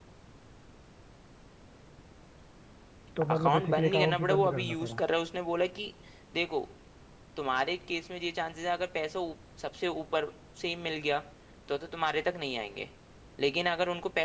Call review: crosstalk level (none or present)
present